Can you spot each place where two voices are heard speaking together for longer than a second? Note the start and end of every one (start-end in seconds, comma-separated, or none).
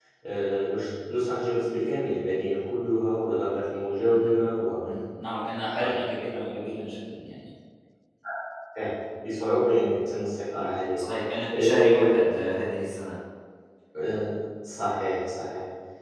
none